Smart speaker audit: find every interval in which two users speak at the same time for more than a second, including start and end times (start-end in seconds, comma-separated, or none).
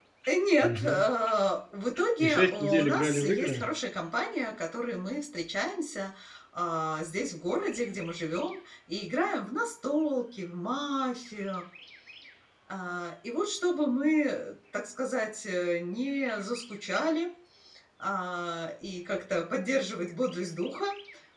2.2-3.6